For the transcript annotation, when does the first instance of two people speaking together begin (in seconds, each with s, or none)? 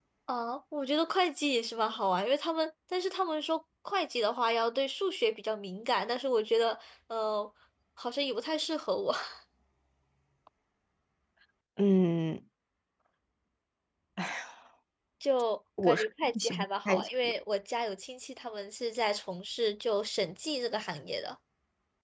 15.8 s